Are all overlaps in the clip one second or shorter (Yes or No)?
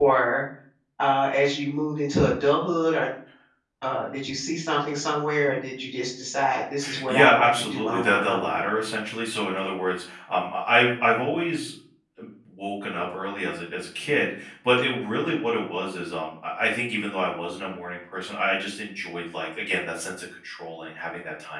No